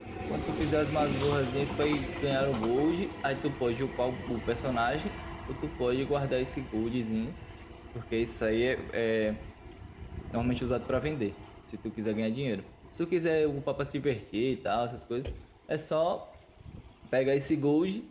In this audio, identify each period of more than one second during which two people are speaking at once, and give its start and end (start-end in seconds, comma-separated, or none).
none